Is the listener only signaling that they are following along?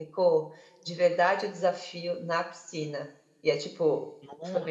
Yes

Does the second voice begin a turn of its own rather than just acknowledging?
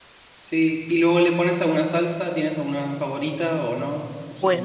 Yes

